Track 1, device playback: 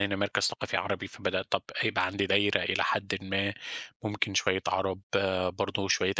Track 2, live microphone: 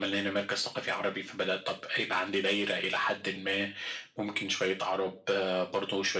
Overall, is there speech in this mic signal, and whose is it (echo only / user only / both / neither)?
echo only